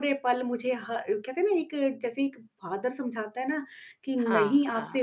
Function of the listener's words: listening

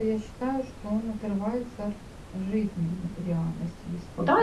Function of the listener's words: taking over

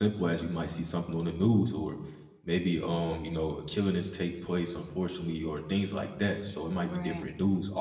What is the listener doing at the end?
listening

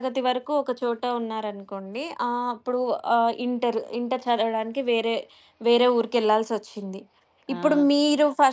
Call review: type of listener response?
listening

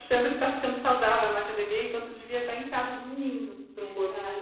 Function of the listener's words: taking over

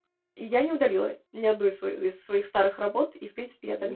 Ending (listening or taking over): listening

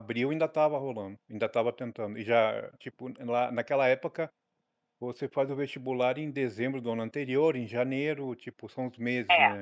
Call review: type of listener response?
taking over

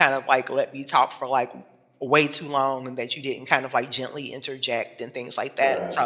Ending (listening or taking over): listening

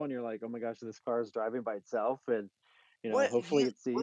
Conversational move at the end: taking over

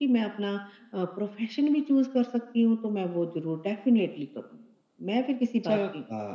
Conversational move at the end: taking over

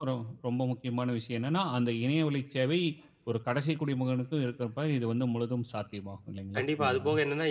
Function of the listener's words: taking over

